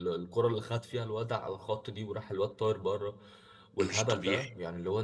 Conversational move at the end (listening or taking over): listening